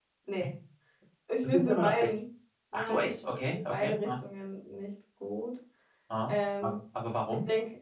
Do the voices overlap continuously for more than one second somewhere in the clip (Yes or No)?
Yes